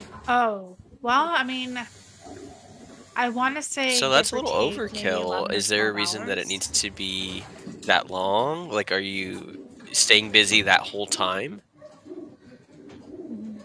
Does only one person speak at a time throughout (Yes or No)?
No